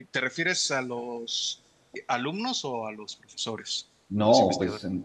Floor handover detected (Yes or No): Yes